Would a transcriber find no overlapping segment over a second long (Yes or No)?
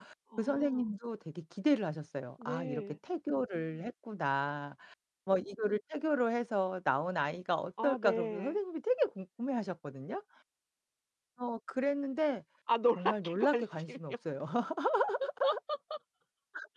No